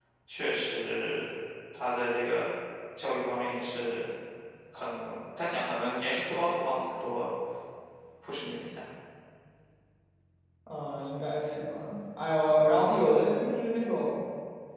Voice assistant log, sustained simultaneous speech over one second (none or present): none